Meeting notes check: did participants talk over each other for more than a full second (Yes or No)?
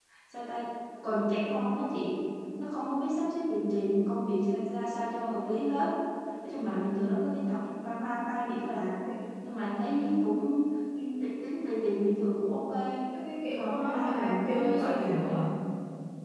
Yes